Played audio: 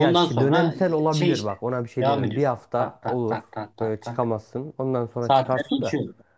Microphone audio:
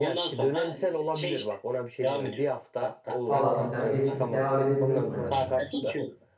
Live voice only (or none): falan filan geçip devam edebiliyordum hayatıma.